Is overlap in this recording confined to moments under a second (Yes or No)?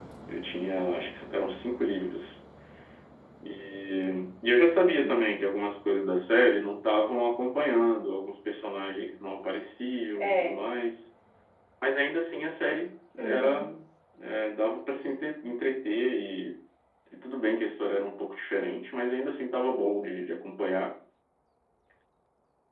Yes